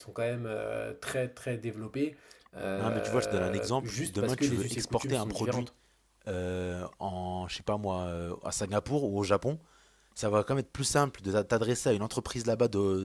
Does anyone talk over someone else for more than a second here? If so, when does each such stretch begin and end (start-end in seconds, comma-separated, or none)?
2.8-5.7